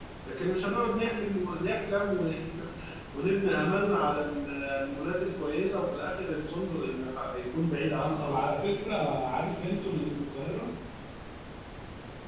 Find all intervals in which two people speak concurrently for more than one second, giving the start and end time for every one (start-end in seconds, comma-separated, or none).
none